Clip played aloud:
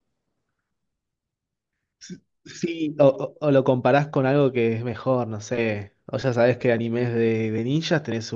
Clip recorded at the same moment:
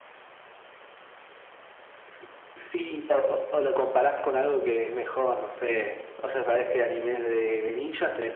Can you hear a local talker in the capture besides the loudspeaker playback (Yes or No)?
No